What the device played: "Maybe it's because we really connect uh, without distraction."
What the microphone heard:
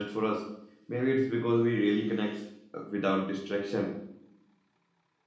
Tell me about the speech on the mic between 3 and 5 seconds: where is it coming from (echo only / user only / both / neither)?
echo only